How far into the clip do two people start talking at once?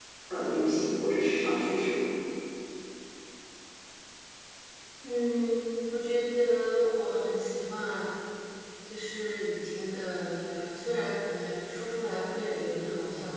none

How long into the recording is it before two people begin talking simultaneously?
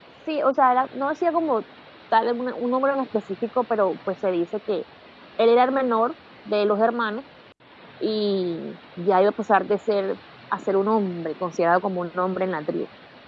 none

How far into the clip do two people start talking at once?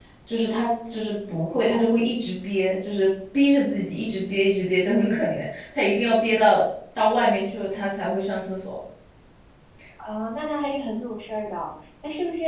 none

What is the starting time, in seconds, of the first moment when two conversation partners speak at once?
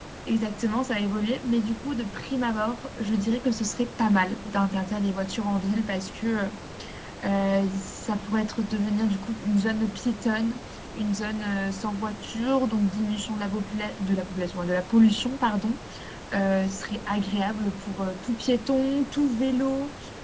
none

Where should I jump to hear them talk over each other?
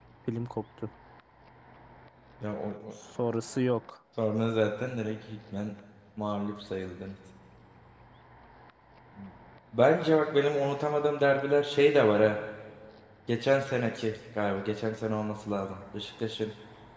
none

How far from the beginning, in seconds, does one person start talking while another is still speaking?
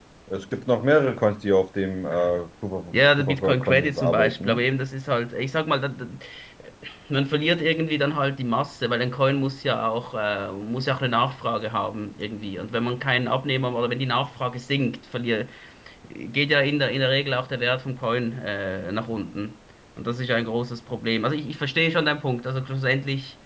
2.9 s

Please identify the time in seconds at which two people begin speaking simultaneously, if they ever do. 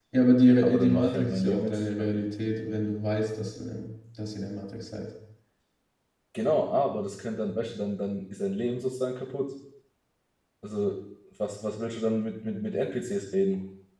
0.6 s

